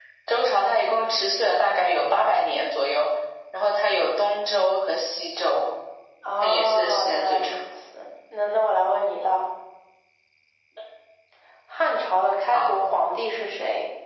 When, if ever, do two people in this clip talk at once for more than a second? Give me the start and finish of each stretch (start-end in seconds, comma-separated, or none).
6.4-7.7